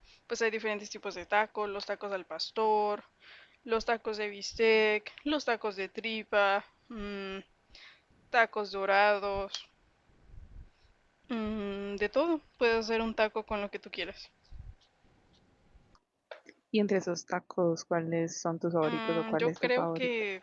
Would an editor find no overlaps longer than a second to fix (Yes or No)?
No